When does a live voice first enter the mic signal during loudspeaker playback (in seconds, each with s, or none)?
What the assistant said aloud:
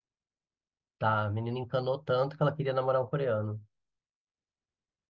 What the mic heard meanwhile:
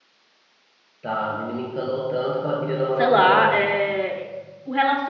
2.9 s